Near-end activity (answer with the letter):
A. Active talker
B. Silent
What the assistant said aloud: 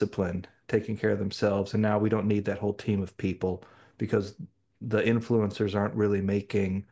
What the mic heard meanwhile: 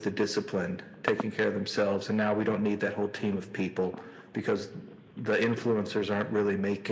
B